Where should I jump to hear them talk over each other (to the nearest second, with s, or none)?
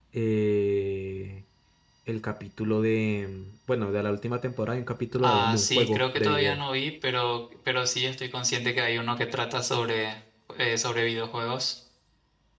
5 s